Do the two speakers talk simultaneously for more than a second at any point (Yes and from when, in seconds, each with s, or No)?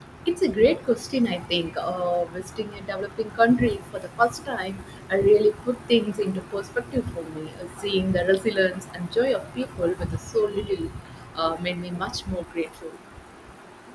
No